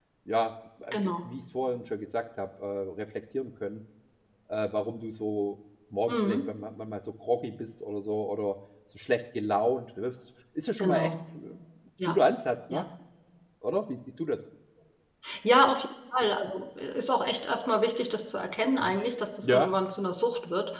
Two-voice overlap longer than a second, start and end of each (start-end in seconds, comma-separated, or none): none